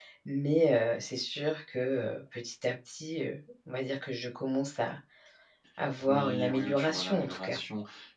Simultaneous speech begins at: 6.1 s

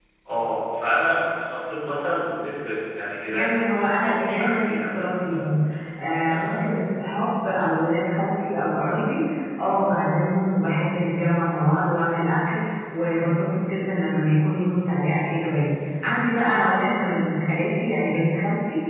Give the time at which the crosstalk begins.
3.3 s

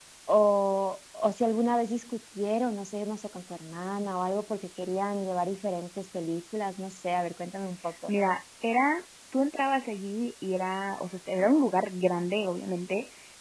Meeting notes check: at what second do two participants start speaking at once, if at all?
none

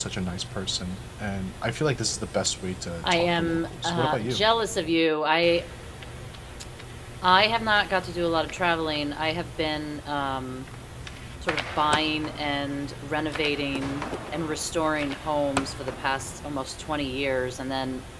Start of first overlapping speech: 3.0 s

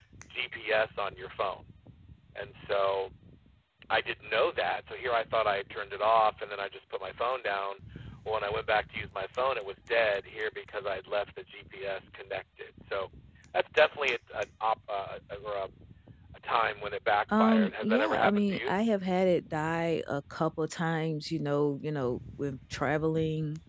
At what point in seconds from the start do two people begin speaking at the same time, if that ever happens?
17.3 s

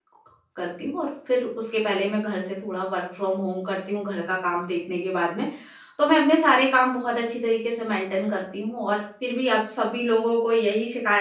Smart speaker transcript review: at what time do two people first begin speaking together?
none

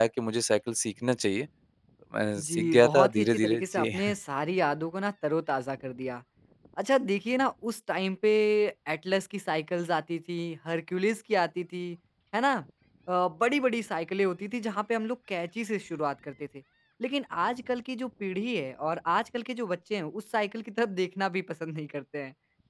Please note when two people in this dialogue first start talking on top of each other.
2.4 s

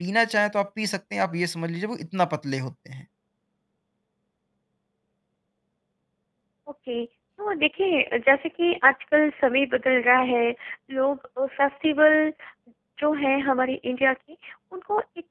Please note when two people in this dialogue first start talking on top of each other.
none

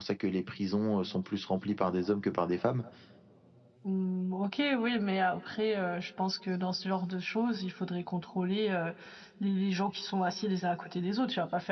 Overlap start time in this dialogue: none

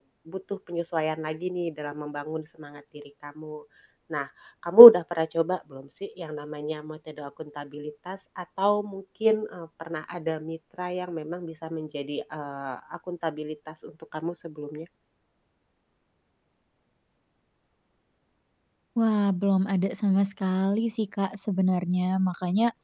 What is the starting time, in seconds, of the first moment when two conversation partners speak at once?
none

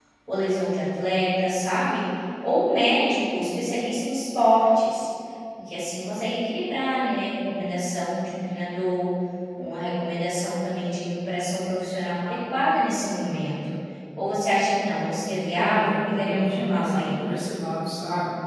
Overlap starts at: 15.6 s

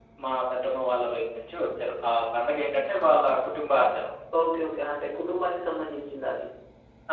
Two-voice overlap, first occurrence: none

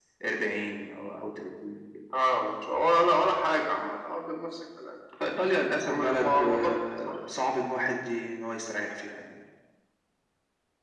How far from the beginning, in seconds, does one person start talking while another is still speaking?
5.2 s

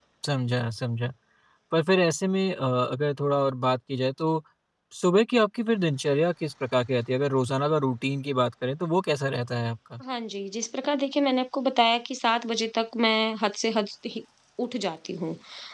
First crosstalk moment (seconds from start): none

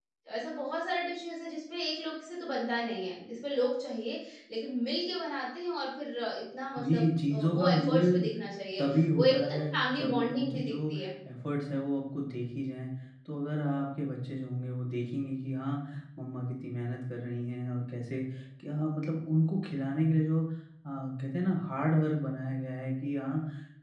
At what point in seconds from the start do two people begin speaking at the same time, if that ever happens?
6.8 s

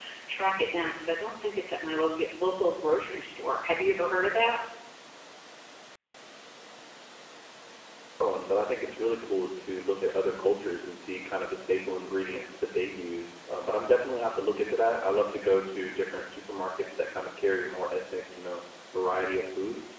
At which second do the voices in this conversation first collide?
none

